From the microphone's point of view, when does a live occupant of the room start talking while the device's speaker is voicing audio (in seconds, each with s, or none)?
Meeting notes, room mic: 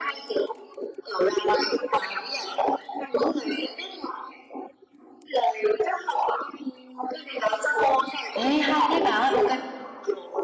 8.3 s